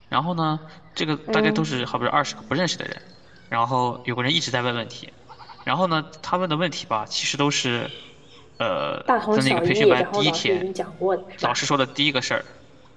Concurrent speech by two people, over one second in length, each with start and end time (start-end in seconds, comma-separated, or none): 9.3-10.6